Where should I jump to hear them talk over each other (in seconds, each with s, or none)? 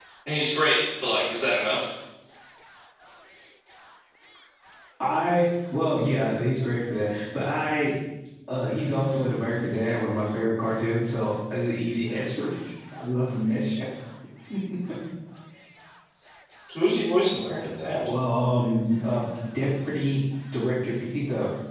none